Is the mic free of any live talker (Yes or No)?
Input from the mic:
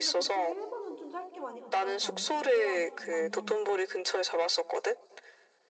No